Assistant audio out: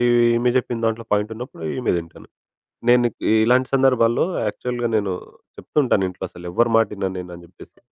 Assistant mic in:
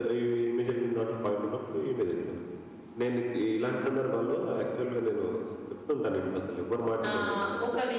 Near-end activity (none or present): present